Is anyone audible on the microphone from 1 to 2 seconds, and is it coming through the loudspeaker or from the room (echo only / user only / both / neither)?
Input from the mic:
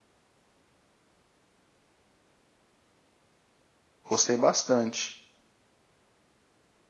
neither